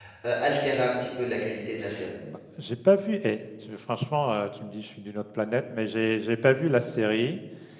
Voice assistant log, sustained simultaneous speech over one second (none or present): none